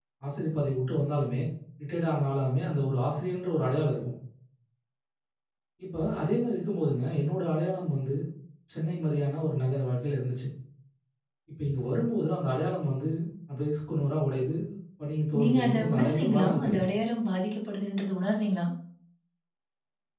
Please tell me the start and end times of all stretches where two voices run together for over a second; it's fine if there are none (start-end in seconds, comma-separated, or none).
15.4-16.9